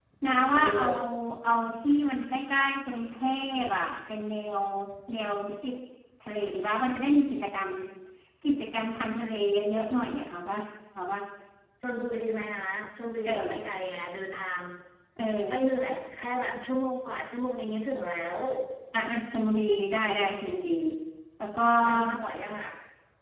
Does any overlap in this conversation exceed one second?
No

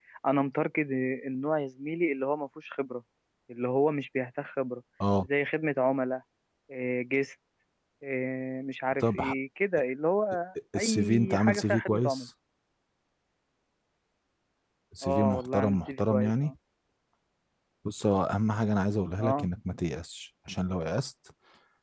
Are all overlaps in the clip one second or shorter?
No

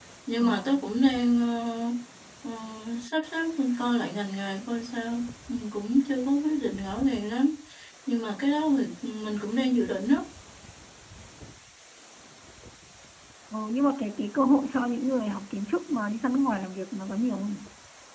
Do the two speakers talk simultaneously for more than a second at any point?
No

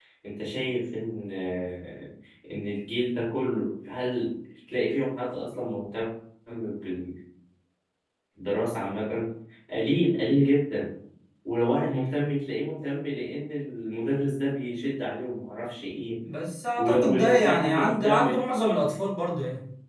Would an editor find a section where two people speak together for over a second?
Yes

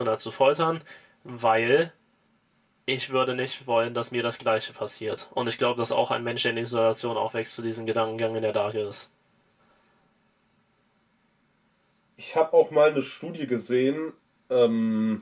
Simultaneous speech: No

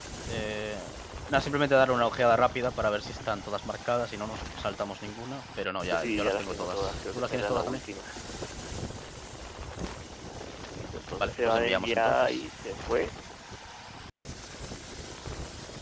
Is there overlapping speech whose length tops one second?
Yes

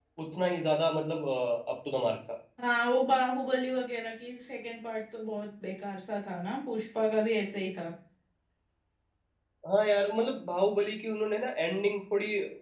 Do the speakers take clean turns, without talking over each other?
Yes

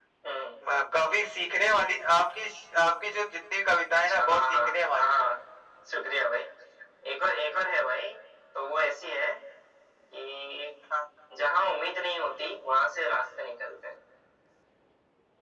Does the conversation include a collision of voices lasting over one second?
Yes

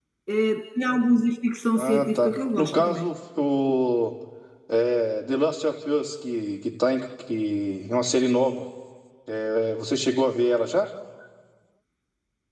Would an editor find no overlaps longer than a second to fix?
No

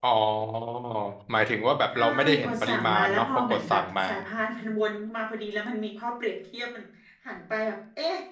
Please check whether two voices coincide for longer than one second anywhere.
Yes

